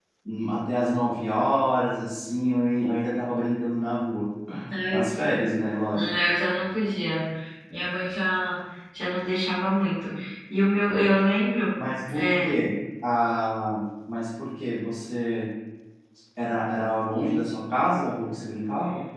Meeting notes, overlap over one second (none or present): none